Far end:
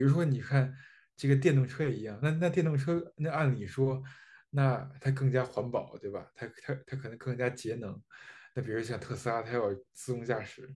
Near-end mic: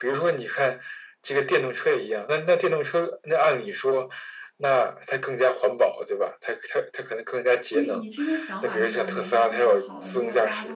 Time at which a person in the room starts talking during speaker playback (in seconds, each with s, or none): 7.7 s